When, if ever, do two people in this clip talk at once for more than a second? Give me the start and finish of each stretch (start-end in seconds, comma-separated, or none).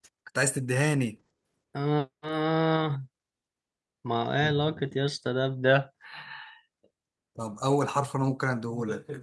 none